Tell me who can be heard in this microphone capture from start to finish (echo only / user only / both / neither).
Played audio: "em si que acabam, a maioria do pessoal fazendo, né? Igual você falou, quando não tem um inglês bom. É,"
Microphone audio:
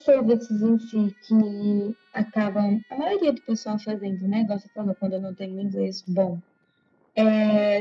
echo only